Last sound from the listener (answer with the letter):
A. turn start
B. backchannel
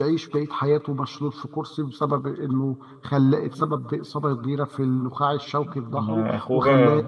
A